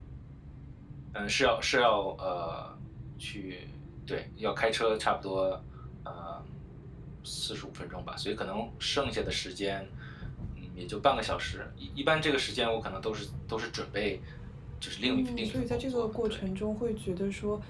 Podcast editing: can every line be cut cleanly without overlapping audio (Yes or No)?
No